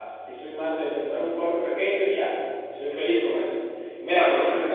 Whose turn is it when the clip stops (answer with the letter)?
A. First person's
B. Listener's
A